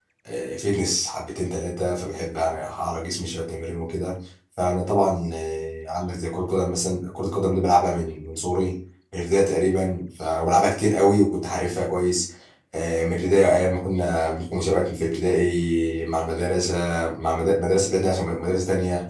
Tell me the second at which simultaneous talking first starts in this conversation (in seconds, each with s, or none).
none